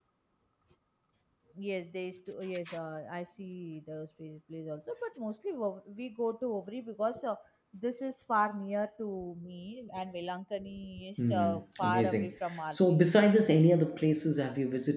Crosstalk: present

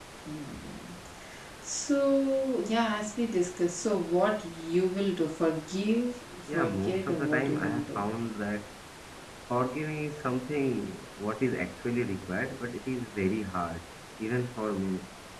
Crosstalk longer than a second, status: present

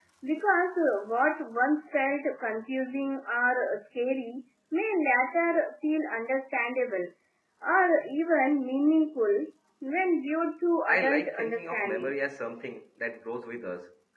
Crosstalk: present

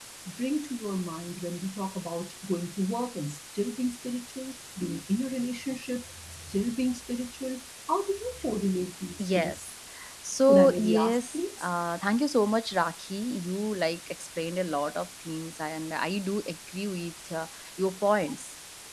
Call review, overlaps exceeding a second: present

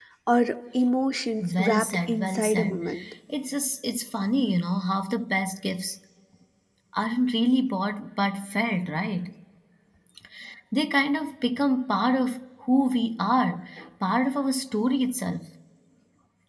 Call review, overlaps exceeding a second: present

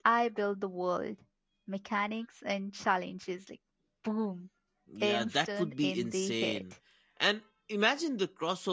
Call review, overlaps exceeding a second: present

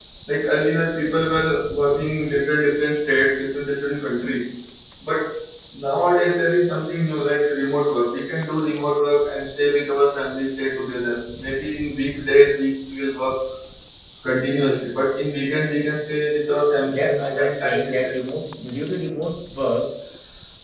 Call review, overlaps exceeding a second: present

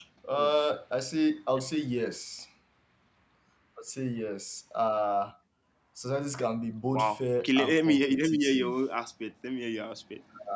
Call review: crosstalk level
present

